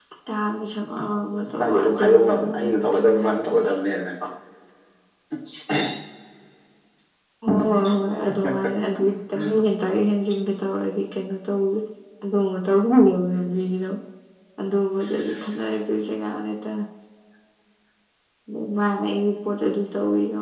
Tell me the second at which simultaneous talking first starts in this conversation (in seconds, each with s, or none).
1.6 s